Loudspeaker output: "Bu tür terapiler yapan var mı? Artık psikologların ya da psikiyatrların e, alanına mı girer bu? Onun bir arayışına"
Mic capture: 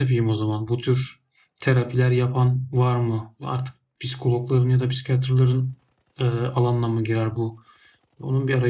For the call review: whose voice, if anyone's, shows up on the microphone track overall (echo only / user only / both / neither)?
echo only